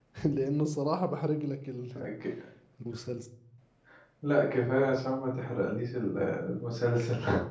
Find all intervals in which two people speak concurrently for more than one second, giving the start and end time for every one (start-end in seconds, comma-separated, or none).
none